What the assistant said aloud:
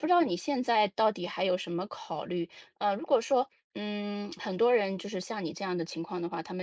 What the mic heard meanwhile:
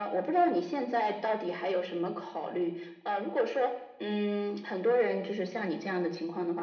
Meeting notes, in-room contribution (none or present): none